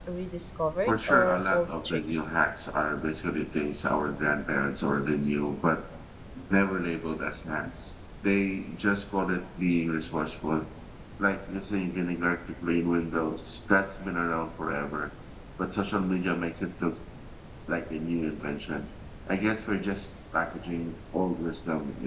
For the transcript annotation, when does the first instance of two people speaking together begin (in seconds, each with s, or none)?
0.8 s